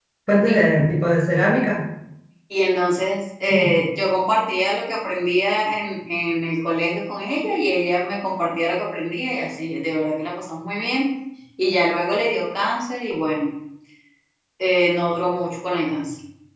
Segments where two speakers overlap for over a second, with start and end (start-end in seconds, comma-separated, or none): none